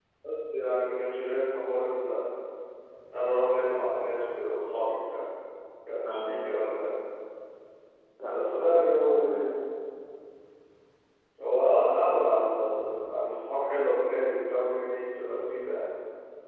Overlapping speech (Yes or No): Yes